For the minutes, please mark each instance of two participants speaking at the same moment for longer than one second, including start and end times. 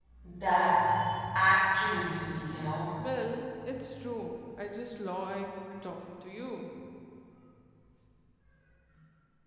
none

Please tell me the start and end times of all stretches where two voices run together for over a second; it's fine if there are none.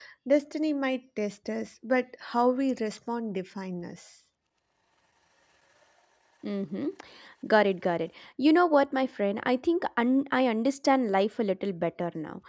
none

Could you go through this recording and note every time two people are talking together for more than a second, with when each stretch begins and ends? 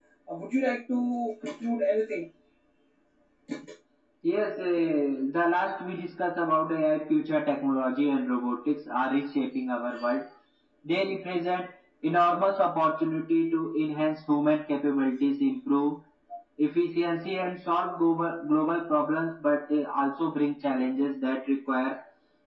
none

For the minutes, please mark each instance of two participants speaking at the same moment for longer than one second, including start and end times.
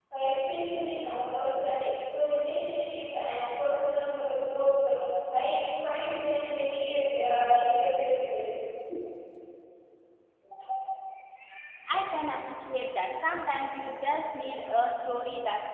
none

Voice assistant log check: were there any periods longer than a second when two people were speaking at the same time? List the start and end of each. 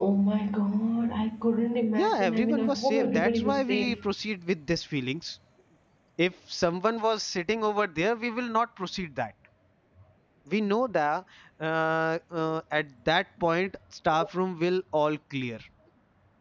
1.9-4.0

